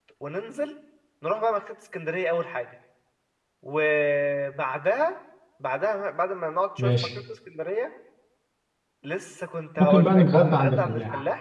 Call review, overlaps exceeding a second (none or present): present